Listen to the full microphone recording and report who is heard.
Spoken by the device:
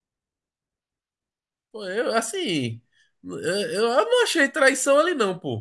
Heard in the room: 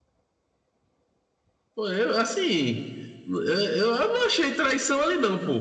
echo only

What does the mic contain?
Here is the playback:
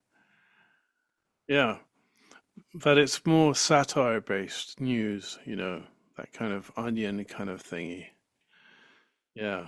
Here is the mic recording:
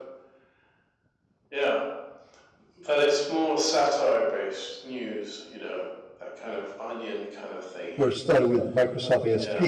both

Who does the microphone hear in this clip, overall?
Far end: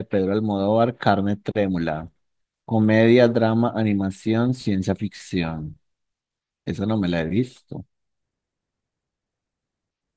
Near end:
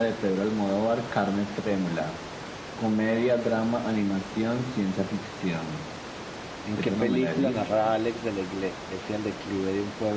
both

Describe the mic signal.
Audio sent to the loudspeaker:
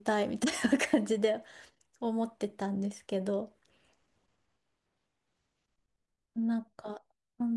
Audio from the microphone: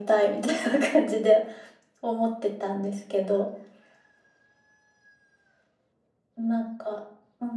echo only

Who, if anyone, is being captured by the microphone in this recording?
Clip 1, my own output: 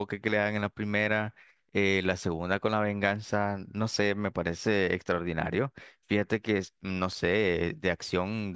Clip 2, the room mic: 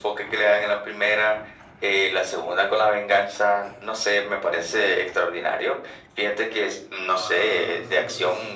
both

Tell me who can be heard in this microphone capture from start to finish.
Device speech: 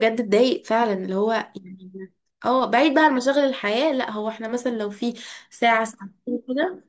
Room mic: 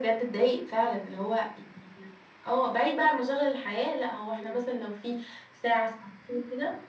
both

